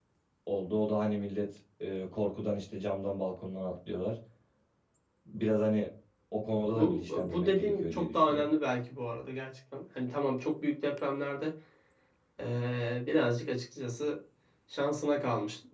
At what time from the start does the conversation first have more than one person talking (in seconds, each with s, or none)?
6.7 s